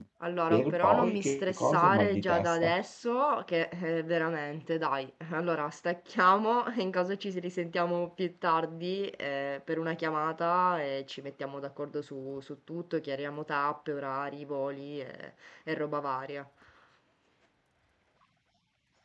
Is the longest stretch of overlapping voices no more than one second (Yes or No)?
No